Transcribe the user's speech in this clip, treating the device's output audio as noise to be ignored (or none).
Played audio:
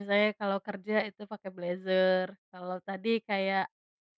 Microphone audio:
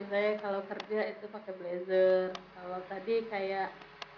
none